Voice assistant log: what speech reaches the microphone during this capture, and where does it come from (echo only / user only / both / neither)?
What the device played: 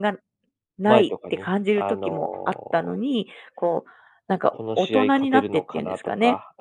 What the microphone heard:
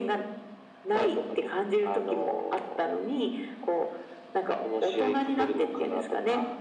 echo only